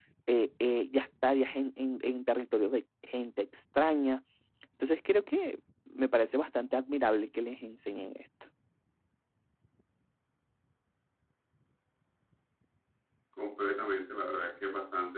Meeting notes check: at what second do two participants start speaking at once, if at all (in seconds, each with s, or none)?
none